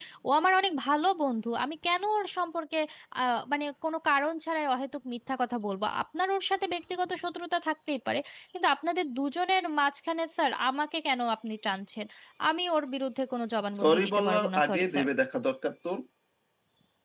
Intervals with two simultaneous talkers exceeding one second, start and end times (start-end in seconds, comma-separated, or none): 13.8-15.1